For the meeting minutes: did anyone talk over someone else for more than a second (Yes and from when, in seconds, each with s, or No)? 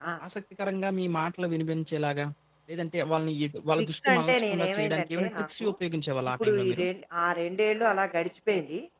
Yes, from 3.8 s